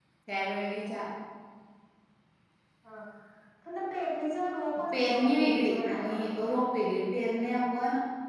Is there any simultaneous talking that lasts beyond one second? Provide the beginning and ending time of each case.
5.0-6.2

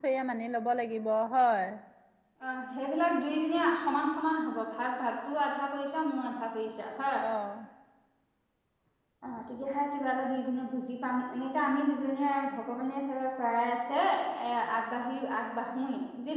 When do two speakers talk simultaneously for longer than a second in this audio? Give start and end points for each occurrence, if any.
none

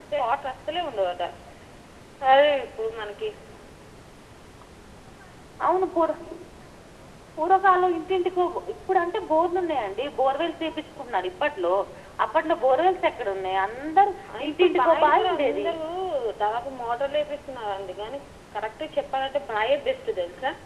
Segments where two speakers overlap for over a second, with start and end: 14.4-15.7

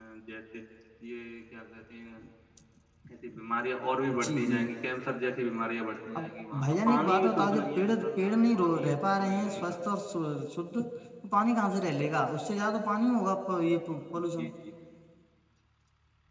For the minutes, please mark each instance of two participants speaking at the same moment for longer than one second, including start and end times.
6.6-9.8

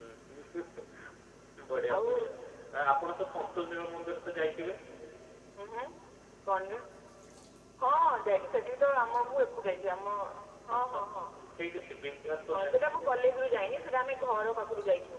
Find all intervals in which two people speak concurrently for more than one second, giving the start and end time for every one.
none

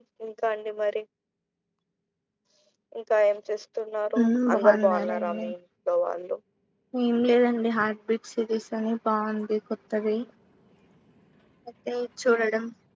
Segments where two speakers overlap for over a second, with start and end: 4.2-5.4

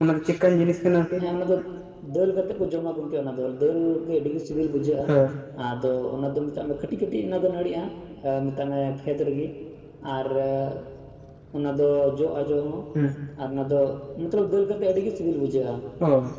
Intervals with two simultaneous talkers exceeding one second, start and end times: none

